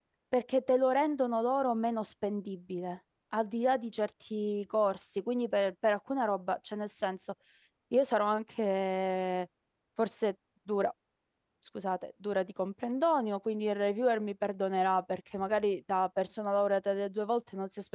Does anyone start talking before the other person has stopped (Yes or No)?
No